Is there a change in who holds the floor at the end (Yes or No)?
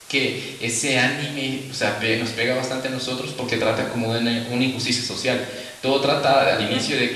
No